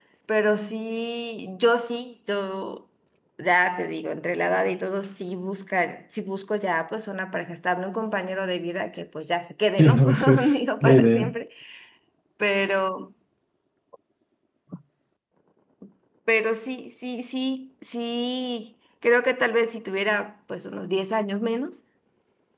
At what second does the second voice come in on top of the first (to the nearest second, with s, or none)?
10 s